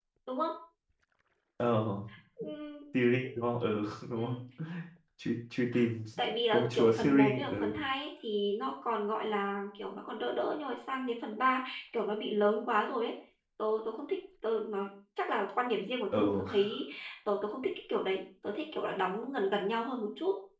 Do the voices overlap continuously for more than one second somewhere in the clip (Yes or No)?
Yes